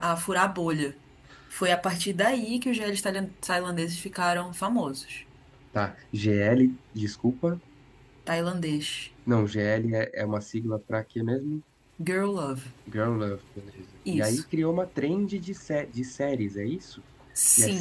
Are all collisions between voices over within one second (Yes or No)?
Yes